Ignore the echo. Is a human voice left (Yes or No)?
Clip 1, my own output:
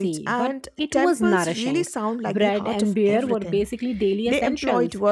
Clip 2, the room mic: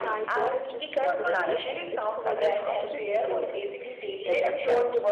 Yes